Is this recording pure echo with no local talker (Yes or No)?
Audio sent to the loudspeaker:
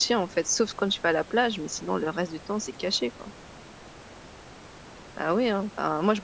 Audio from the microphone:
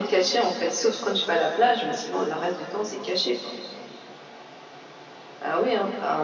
Yes